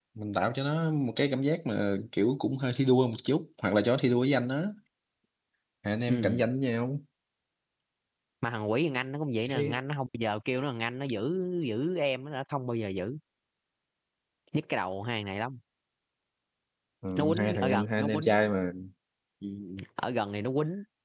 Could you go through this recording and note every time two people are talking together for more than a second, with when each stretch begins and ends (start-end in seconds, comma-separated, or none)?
17.2-18.5